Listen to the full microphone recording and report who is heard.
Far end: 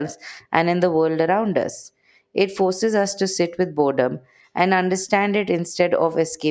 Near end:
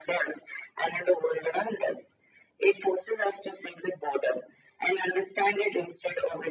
echo only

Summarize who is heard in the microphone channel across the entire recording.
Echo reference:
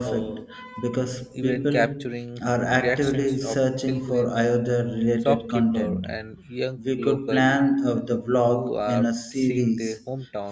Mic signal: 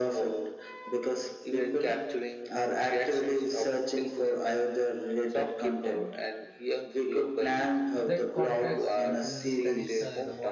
both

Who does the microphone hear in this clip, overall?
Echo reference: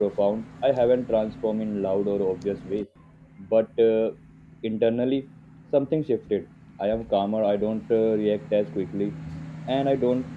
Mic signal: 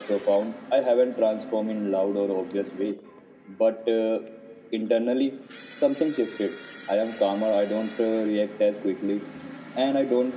echo only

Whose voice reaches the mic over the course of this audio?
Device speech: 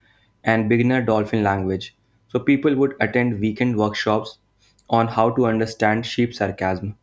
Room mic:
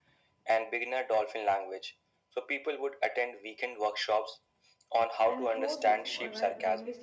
both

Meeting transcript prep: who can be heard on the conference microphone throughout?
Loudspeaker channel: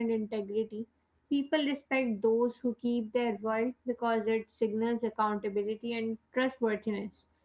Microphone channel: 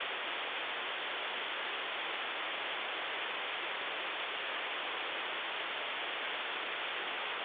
neither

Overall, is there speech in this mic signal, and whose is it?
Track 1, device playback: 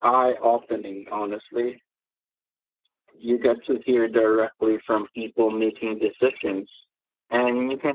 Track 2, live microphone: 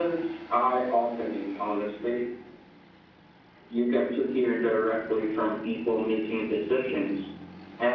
echo only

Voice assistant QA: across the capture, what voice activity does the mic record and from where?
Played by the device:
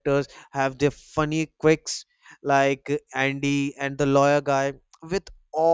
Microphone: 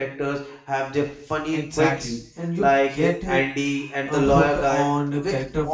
both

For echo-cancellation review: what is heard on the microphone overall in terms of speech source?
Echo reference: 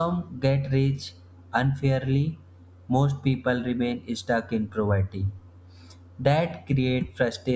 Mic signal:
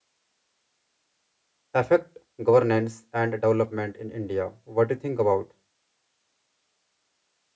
user only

